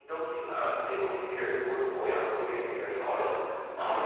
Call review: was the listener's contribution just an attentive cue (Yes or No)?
Yes